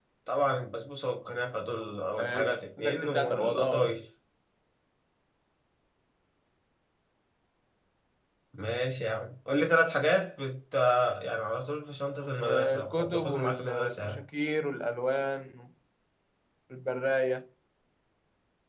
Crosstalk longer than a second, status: present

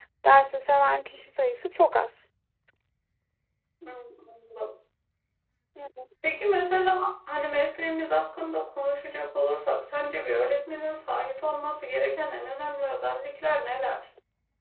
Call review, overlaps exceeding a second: none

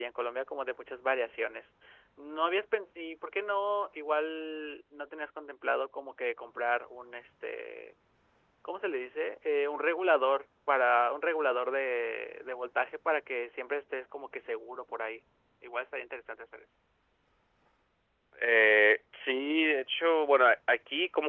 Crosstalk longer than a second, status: none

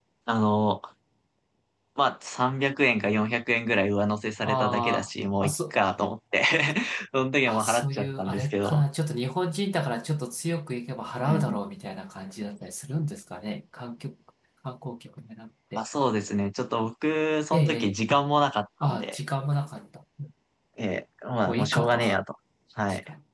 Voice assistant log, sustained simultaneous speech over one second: present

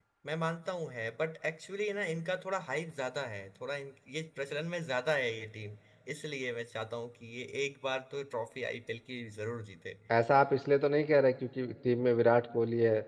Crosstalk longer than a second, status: none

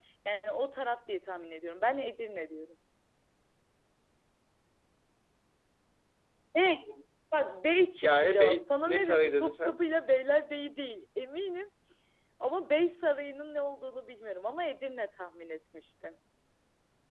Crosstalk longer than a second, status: present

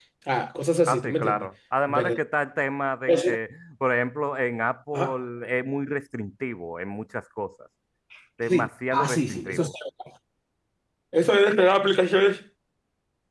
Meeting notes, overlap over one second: present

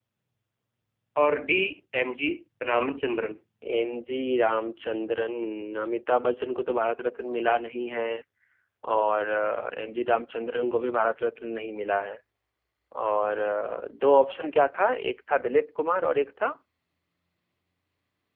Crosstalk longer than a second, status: none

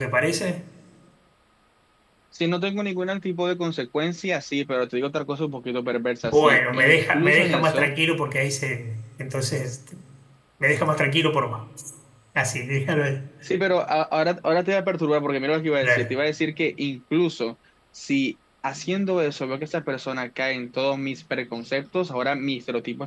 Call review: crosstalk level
present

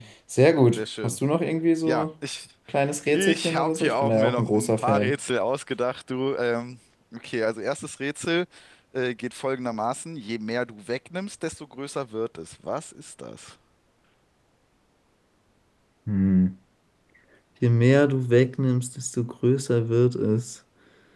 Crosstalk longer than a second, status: present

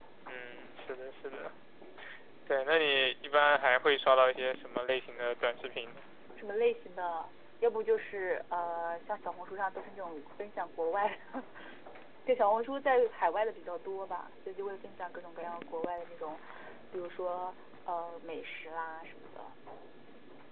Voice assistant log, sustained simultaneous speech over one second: none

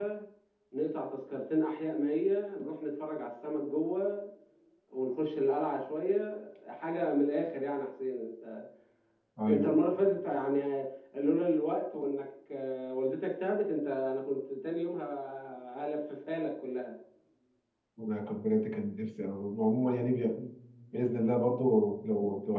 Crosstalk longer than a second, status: none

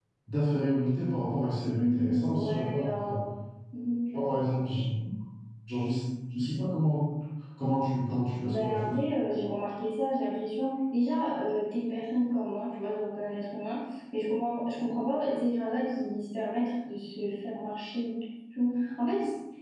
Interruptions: present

